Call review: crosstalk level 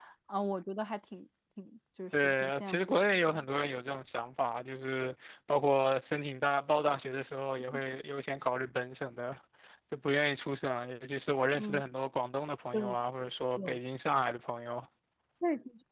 present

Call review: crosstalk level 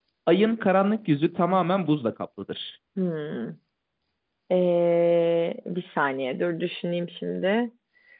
none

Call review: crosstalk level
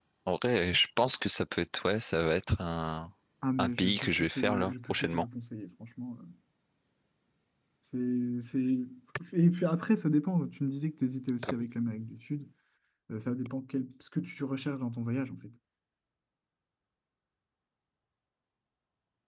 present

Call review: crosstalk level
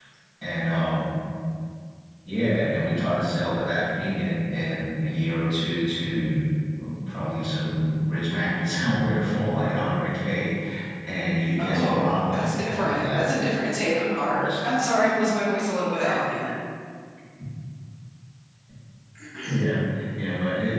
present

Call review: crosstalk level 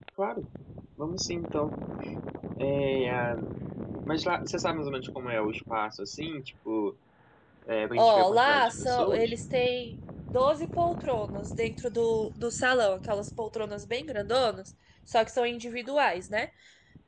present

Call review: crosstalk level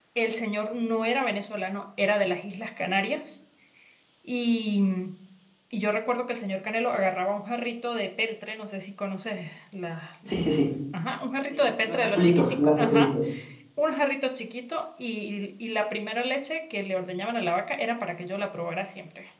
present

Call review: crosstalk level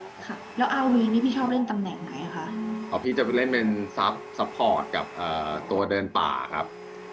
none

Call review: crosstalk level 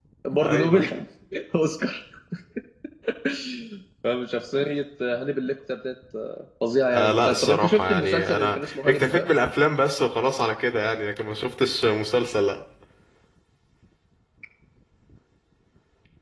present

